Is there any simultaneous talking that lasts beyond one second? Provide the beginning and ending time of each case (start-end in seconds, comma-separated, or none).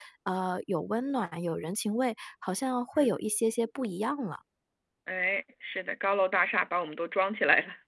none